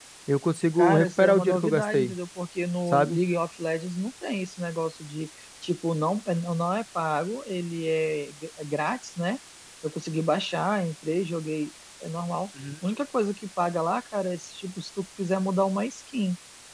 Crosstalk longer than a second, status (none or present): present